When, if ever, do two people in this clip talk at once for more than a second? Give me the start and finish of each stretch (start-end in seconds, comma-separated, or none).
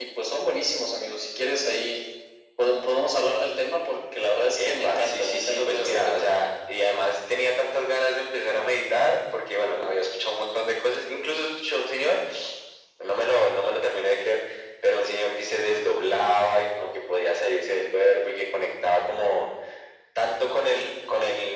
4.6-6.3